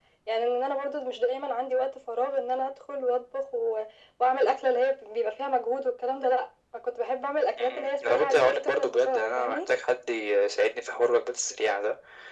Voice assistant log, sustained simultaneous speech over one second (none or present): present